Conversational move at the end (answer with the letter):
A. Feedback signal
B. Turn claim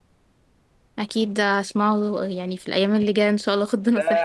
B